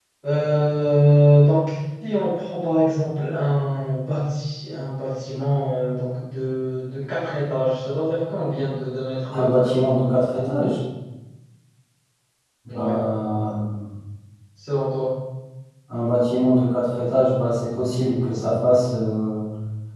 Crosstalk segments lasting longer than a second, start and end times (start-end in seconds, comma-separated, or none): none